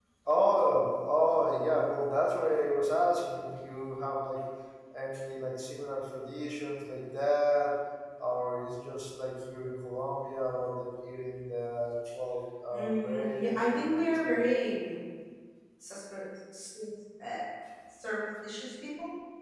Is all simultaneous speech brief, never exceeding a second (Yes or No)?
No